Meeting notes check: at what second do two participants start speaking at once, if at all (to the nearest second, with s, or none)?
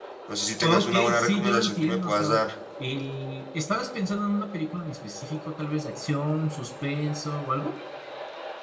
1 s